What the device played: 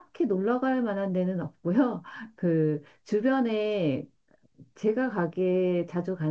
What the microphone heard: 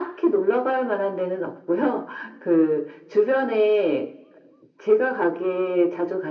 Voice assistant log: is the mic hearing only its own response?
Yes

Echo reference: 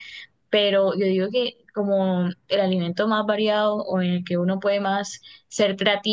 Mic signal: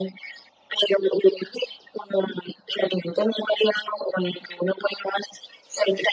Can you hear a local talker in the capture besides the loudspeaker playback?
No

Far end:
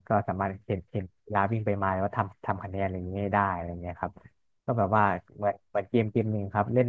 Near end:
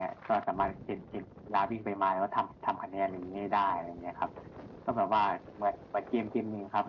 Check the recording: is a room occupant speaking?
No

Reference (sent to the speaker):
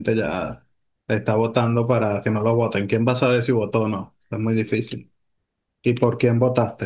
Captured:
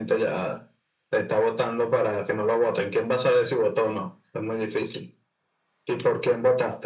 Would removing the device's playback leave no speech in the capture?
Yes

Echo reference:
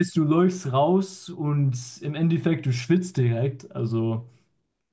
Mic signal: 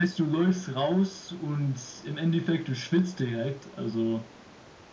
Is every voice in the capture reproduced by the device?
Yes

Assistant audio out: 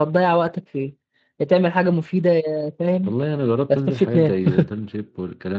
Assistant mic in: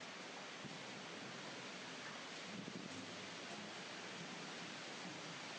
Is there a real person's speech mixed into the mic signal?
No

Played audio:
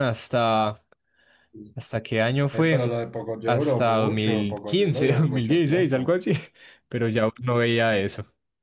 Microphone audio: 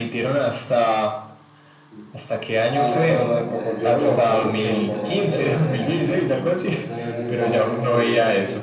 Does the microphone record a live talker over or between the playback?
Yes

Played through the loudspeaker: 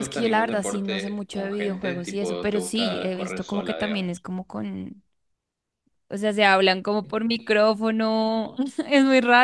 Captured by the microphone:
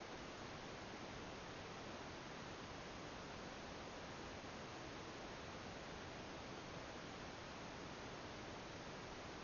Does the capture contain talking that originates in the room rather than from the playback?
No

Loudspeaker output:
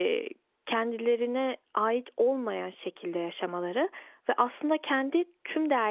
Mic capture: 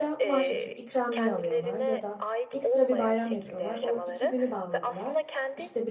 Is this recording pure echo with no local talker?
No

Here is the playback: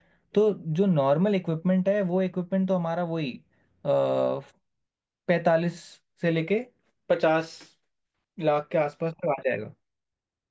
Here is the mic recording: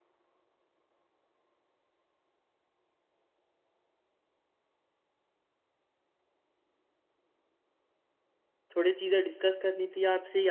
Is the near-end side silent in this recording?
No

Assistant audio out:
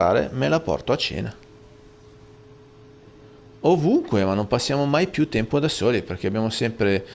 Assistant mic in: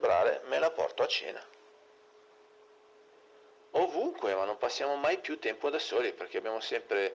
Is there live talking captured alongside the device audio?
No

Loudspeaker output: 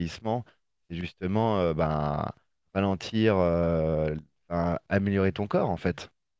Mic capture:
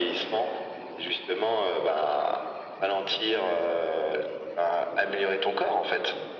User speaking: No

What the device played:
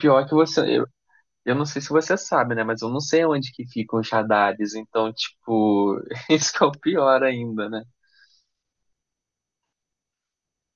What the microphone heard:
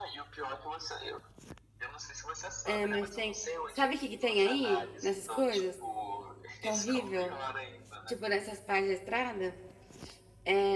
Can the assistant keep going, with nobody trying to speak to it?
No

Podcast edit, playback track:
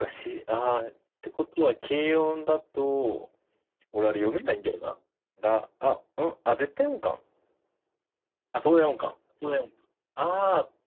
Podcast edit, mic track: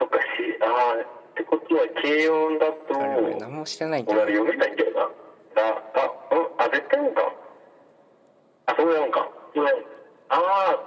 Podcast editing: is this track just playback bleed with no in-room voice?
No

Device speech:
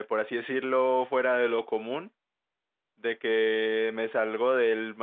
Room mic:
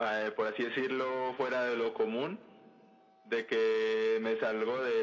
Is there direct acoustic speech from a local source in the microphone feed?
No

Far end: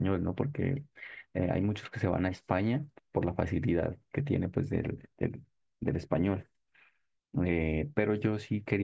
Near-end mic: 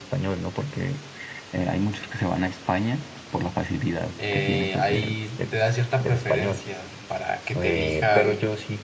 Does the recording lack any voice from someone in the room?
No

